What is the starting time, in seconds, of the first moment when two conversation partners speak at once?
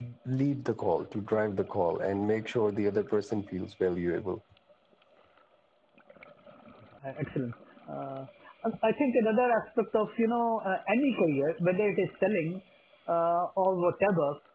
none

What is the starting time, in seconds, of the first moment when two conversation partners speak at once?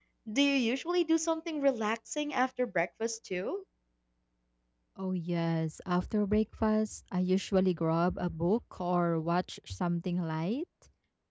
none

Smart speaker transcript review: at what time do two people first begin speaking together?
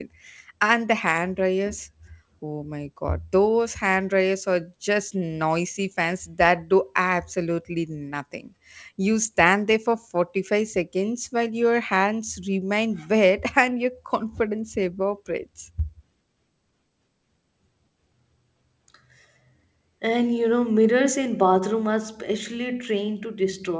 none

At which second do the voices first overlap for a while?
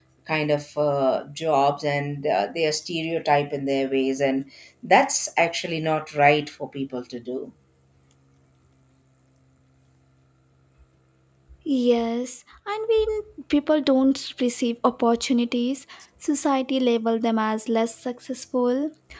none

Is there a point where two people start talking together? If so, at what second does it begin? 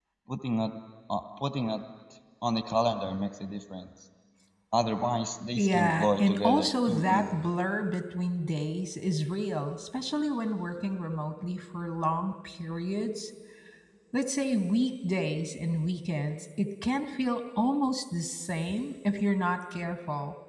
5.6 s

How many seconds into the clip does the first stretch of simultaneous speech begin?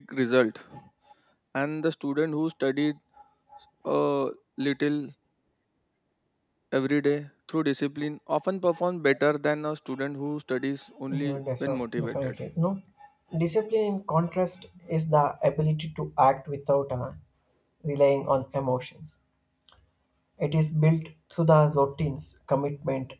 11.1 s

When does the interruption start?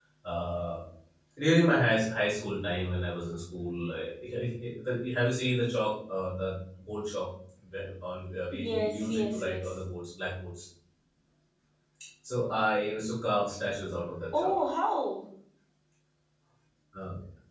8.5 s

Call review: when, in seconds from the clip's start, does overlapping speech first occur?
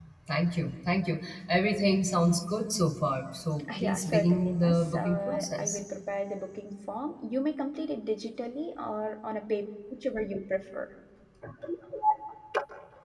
3.7 s

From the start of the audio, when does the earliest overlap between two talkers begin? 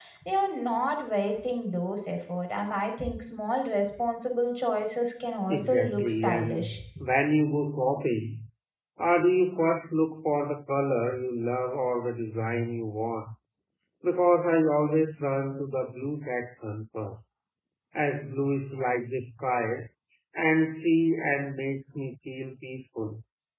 5.5 s

